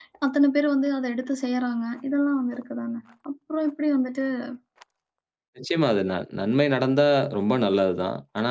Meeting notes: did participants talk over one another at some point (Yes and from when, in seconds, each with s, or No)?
No